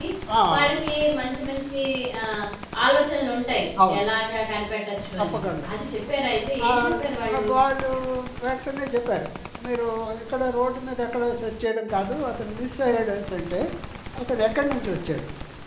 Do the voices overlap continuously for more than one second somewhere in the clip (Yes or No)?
No